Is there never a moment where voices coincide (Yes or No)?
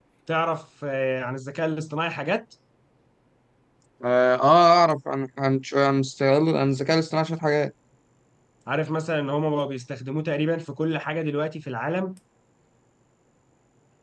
Yes